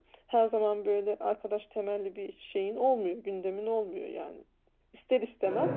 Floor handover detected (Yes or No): No